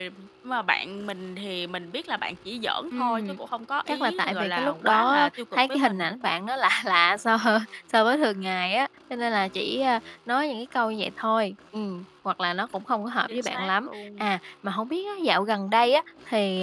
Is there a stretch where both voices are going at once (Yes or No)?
Yes